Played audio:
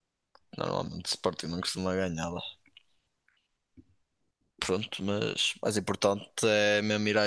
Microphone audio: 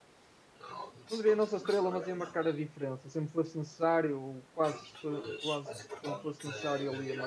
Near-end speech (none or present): present